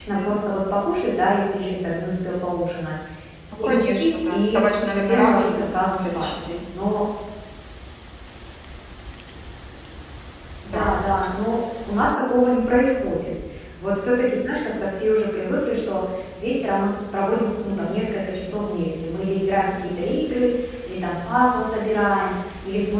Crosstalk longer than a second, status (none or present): present